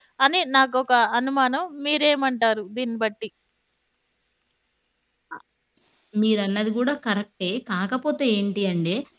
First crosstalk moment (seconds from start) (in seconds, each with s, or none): none